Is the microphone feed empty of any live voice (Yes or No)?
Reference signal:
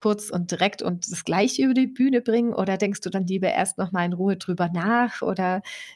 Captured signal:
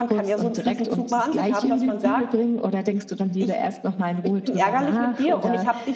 No